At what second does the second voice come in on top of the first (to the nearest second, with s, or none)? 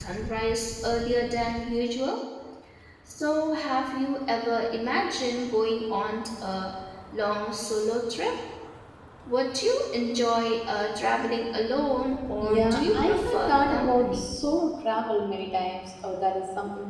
12 s